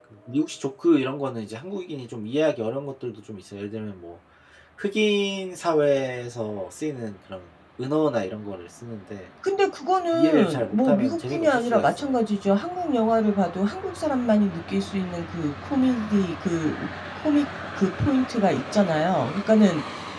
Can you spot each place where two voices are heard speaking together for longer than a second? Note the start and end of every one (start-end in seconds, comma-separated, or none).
10.1-12.1